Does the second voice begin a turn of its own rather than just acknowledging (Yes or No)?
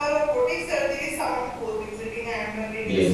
No